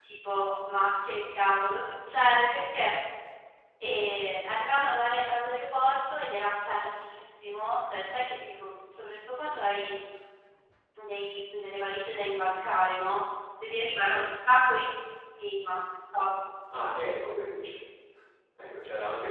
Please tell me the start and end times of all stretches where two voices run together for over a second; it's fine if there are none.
none

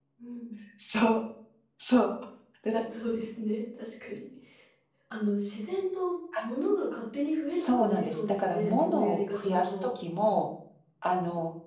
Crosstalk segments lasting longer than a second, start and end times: 7.5-9.9

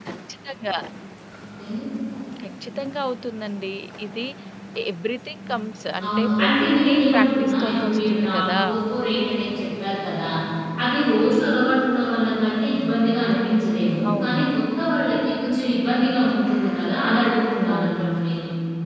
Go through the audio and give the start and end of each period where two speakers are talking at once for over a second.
6.0-8.6

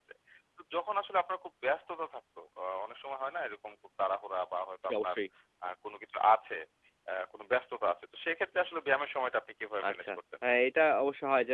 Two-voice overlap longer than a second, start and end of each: none

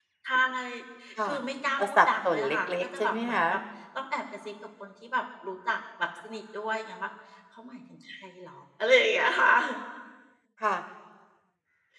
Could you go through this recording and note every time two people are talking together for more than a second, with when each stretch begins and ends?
1.8-3.6

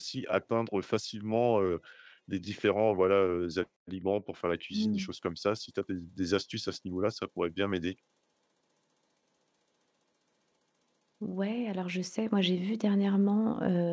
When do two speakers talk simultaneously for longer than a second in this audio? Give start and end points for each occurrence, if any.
none

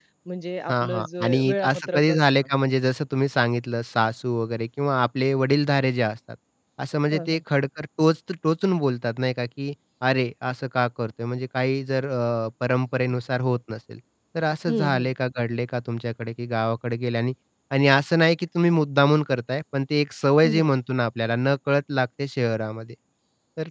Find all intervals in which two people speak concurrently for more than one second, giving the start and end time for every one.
0.7-2.2

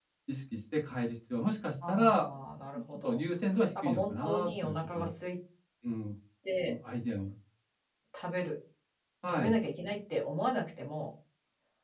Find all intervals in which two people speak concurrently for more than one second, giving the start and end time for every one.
3.8-5.1

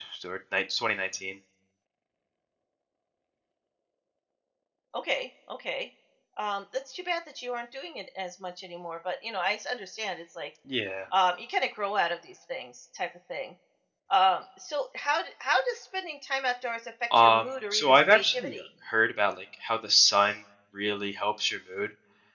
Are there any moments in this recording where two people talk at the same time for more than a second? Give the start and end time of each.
17.2-18.6

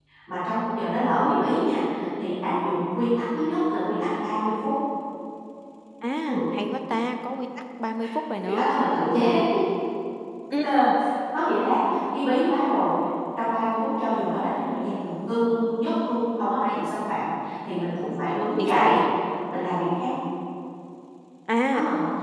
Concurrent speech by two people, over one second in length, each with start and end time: none

